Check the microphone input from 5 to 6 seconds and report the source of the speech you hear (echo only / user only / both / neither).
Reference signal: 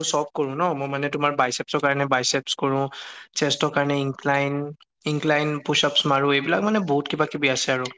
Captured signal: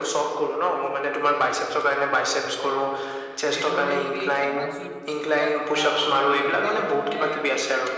both